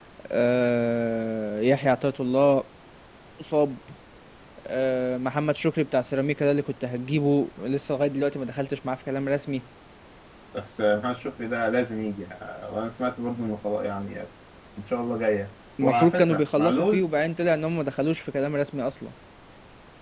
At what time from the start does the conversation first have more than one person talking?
15.8 s

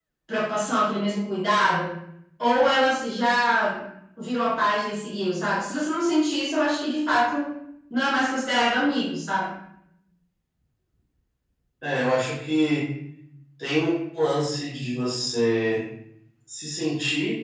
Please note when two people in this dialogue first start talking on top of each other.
none

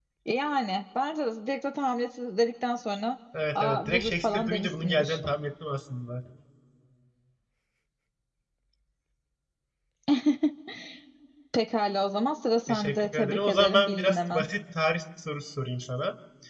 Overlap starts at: 3.6 s

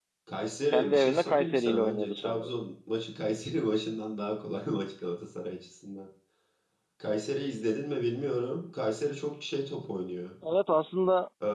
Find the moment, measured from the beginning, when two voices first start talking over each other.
0.7 s

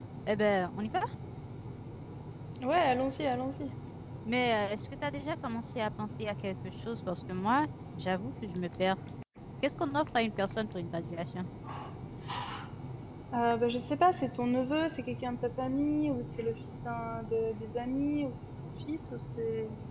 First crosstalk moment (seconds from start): none

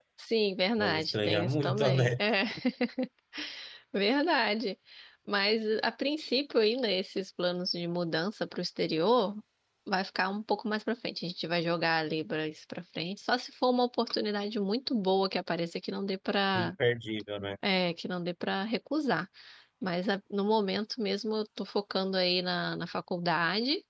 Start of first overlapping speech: 0.8 s

